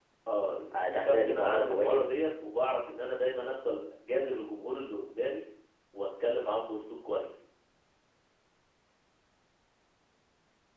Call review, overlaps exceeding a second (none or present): present